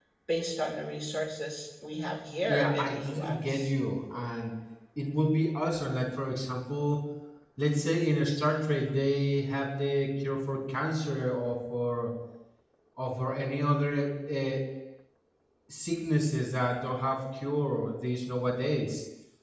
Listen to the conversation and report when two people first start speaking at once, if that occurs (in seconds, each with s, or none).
2.5 s